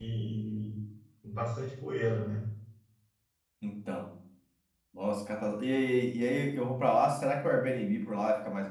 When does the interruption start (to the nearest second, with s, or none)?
none